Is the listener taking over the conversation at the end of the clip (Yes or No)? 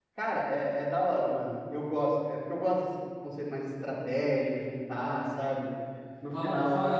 Yes